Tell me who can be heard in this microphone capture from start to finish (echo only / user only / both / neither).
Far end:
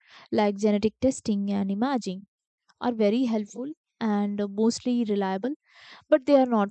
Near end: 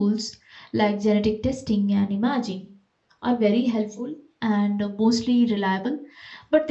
echo only